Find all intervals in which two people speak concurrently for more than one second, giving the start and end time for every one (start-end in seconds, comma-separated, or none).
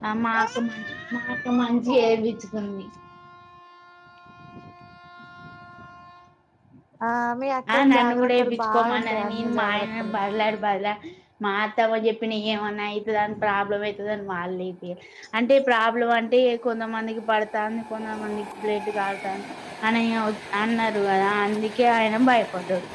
7.8-10.1